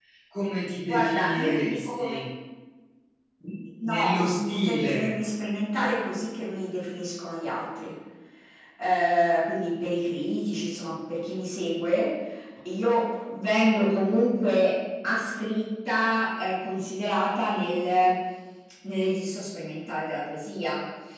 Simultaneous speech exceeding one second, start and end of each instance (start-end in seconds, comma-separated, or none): 0.8-2.2, 3.8-5.2